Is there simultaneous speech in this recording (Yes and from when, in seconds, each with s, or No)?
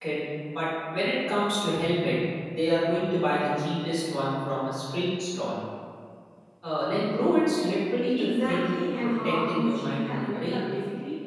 Yes, from 8.2 s